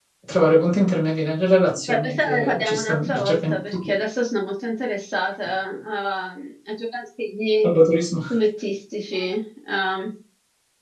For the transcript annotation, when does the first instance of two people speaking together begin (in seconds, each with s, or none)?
1.9 s